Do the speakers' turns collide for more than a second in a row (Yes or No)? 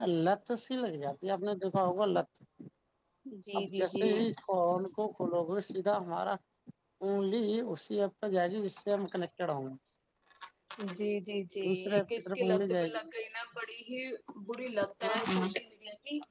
Yes